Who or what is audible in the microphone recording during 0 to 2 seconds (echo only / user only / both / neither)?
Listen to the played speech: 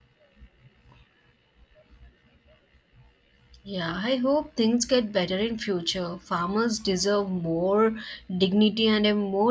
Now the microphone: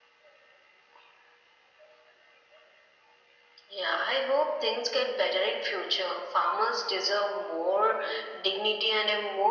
neither